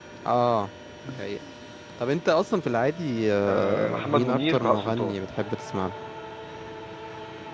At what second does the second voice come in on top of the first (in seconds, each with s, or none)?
3.5 s